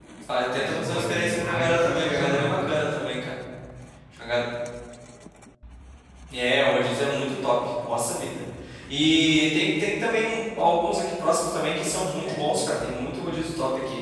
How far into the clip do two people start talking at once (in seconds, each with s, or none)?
0.5 s